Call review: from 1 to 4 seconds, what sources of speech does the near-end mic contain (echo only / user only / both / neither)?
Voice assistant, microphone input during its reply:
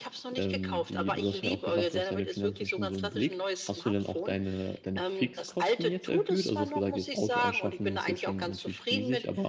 both